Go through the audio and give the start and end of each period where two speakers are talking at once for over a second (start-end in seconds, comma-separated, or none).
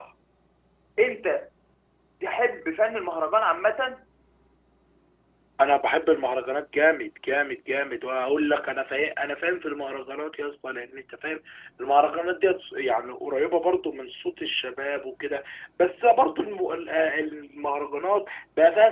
none